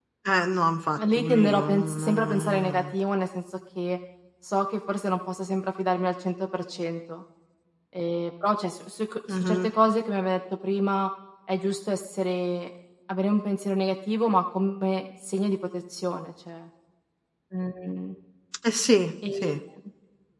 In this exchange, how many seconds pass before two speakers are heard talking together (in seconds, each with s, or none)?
1.2 s